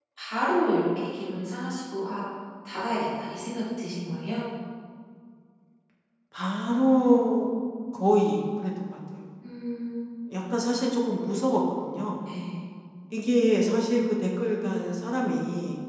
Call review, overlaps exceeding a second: none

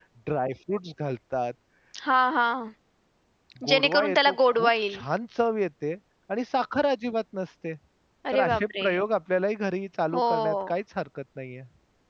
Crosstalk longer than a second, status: present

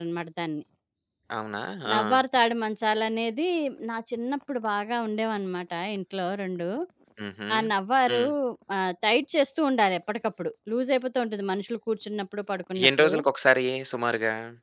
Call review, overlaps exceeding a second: none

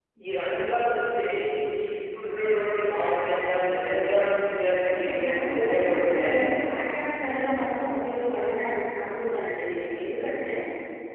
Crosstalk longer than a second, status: present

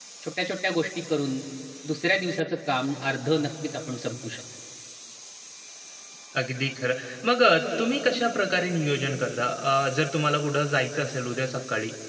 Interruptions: none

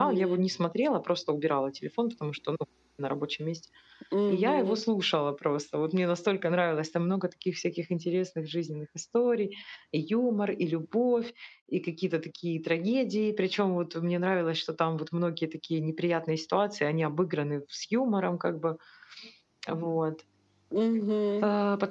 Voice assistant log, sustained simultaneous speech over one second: none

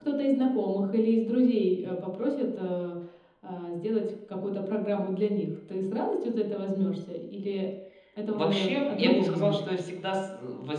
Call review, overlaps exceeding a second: present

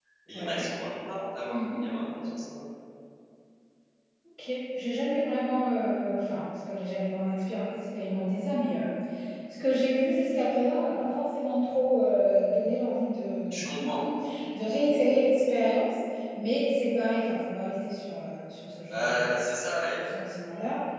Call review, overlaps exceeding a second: none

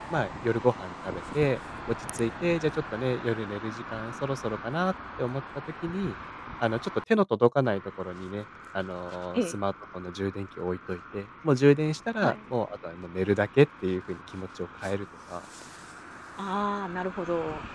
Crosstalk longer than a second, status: none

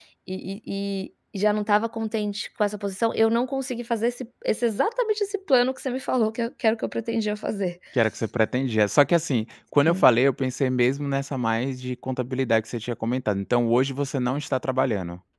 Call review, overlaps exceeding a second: none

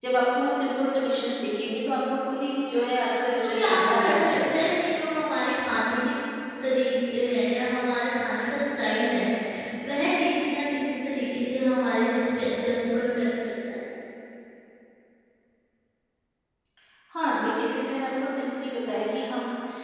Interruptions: present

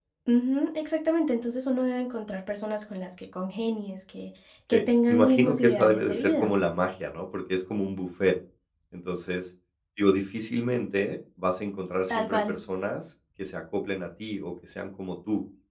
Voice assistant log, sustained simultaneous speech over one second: present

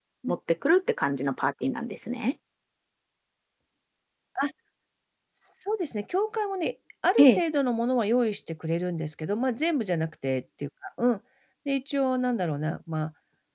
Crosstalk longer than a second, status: none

